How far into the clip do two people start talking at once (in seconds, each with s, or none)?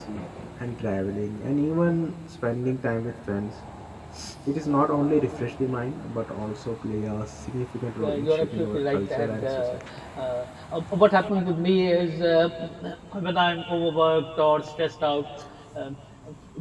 8.0 s